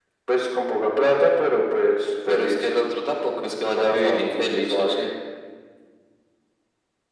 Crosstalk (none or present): present